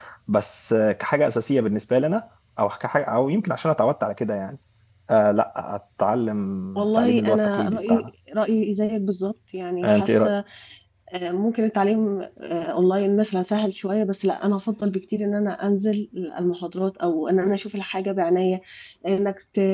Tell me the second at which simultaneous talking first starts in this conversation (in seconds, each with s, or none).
6.8 s